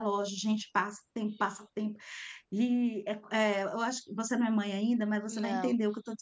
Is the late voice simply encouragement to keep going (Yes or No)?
Yes